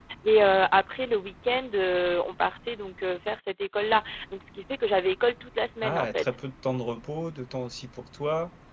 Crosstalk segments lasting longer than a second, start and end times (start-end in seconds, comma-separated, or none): none